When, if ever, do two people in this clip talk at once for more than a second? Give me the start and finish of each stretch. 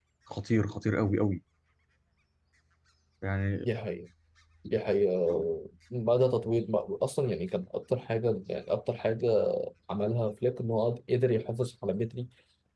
none

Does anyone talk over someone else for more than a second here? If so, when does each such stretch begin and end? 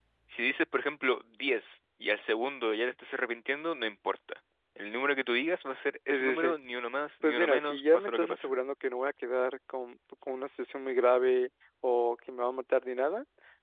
7.2-8.5

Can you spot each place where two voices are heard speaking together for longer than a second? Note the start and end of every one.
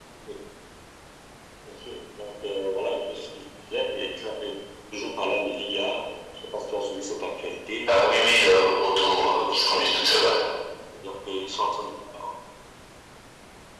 8.8-10.3

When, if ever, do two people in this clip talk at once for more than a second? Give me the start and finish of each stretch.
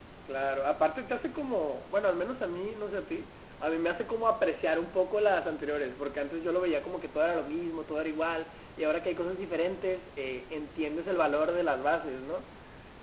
none

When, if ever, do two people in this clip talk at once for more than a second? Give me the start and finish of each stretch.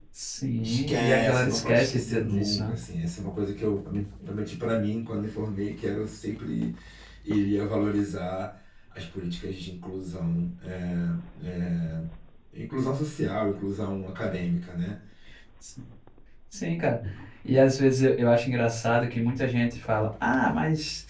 0.6-2.7

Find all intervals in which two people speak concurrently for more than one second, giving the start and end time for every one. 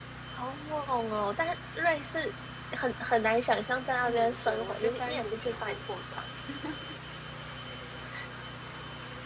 4.0-6.2

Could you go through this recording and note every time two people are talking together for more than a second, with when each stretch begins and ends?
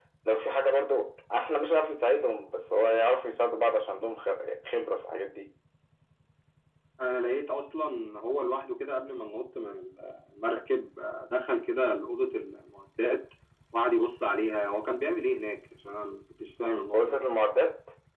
none

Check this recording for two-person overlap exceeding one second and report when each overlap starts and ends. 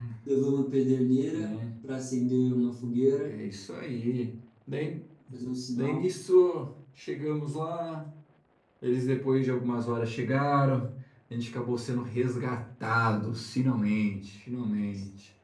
none

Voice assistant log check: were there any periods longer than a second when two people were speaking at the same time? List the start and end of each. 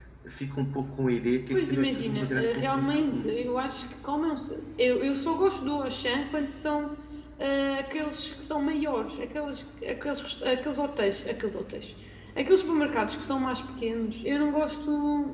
1.5-3.3

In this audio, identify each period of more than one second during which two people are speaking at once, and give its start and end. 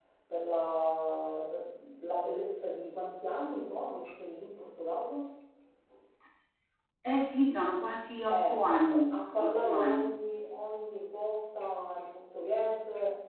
8.3-10.2

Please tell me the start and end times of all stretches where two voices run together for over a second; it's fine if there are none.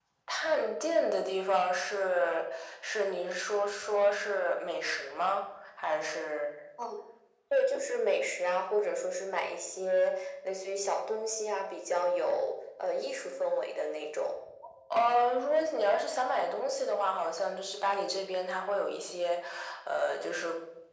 none

